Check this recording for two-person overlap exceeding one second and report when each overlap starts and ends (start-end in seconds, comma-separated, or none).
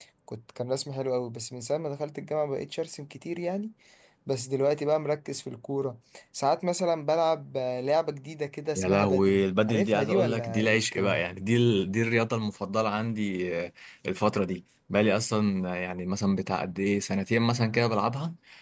8.8-11.2